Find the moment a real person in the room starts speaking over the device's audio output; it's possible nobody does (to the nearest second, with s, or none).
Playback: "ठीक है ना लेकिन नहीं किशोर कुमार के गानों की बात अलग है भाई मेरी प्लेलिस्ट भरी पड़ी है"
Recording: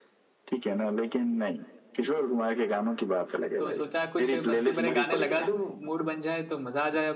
4 s